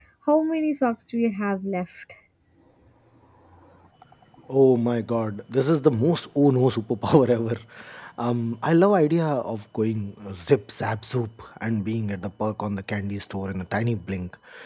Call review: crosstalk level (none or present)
none